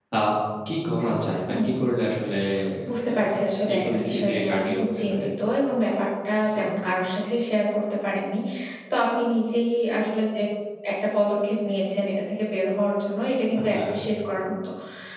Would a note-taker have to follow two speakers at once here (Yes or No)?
Yes